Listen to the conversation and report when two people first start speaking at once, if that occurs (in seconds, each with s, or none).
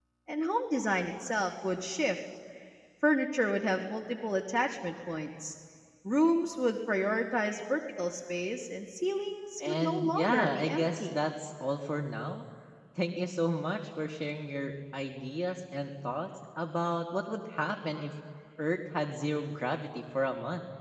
9.6 s